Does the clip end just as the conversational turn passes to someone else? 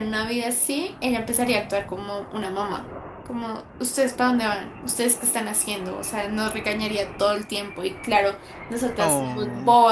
No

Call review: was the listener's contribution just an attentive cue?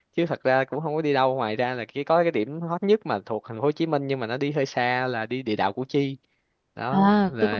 No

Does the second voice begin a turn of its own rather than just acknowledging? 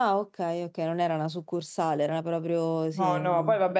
Yes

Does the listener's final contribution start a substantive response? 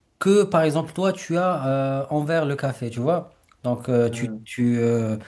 No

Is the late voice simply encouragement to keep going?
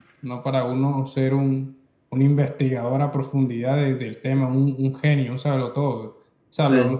Yes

